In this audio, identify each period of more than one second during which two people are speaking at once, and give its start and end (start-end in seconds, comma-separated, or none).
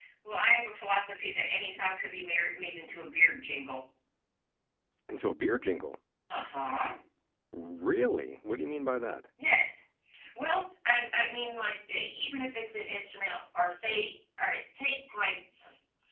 none